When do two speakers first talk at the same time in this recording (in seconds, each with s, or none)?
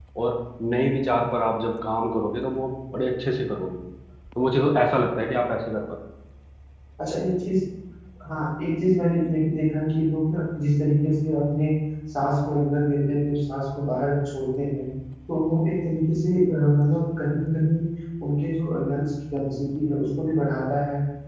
none